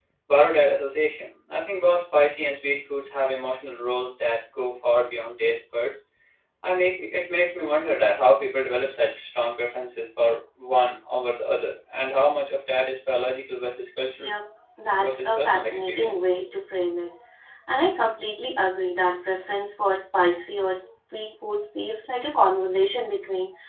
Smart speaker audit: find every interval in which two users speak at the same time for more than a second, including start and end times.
15.0-16.2

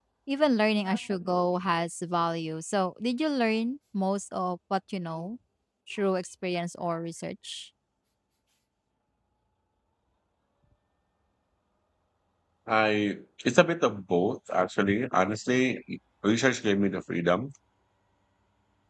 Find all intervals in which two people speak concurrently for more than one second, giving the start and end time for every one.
none

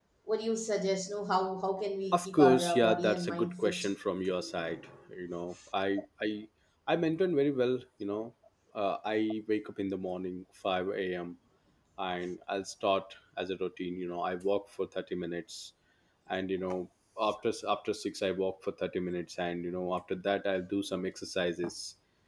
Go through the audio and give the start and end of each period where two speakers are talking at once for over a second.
2.1-3.9

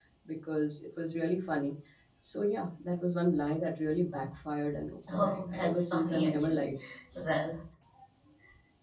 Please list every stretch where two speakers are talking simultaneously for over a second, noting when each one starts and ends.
5.1-6.7

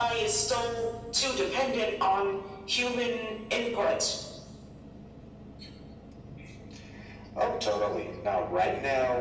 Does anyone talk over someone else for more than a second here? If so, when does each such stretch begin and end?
none

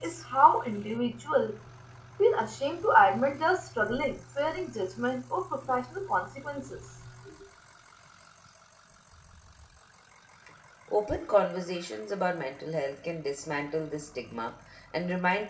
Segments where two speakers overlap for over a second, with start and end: none

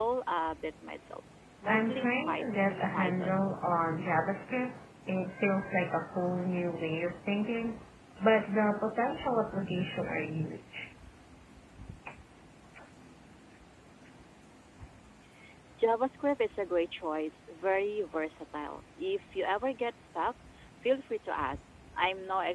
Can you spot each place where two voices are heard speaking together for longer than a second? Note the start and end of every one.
1.6-3.5

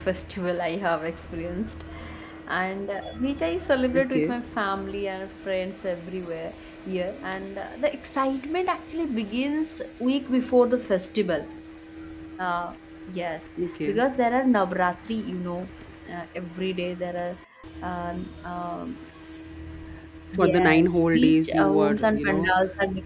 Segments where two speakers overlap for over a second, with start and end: 20.4-22.5

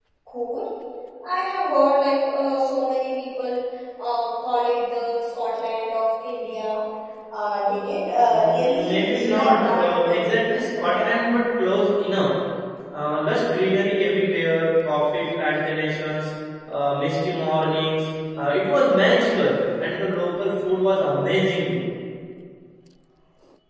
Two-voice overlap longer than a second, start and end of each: 8.2-11.1

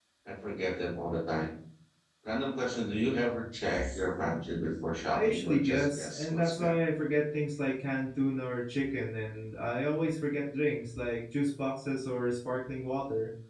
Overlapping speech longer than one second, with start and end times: 5.1-6.7

